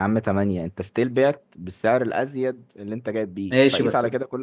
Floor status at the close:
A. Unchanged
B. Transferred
B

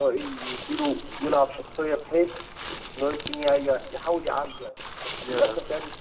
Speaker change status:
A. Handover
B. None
B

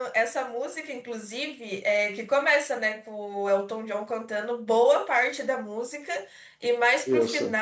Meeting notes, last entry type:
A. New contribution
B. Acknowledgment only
B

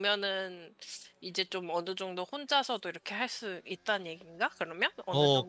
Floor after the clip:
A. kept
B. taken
B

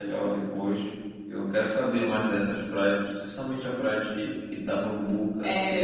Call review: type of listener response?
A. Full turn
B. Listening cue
A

